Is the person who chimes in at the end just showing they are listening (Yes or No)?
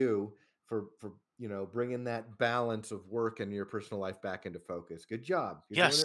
No